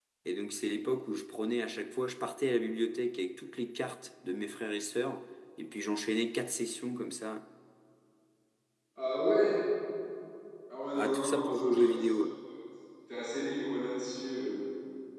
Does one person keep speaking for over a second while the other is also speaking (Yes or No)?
Yes